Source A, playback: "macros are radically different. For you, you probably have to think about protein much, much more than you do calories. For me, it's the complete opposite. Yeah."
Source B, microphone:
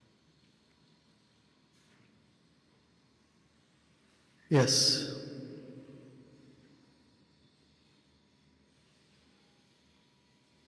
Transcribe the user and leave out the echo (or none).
Yes.